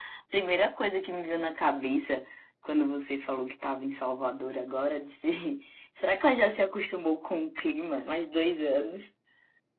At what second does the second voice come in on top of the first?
none

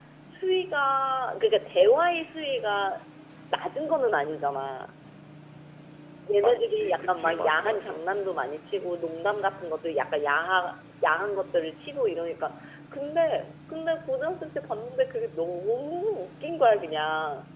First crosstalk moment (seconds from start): 6.4 s

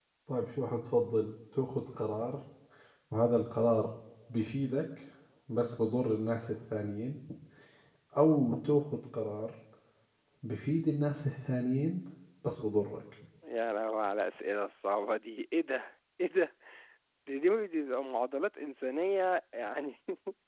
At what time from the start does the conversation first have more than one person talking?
none

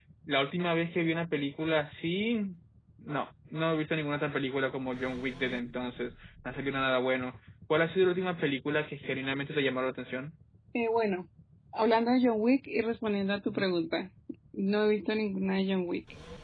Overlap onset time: none

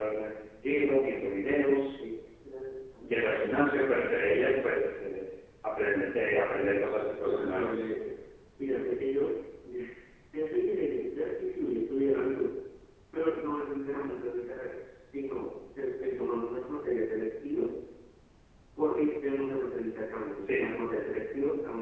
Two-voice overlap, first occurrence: 6.5 s

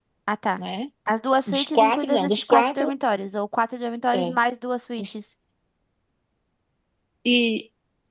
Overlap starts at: 1.5 s

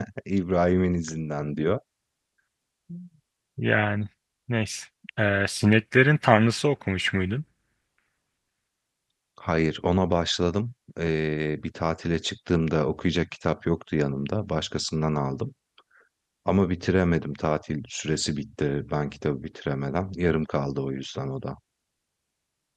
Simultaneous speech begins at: none

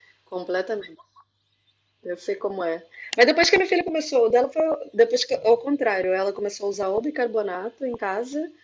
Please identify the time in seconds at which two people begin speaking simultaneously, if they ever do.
none

